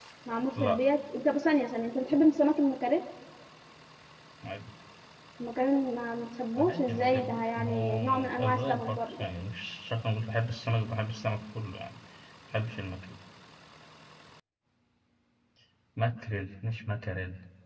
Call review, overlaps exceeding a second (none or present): present